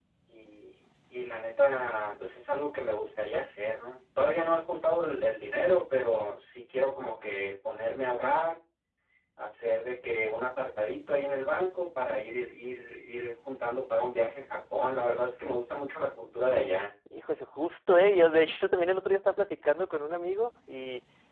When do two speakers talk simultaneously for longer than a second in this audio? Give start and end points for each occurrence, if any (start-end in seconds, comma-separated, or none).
none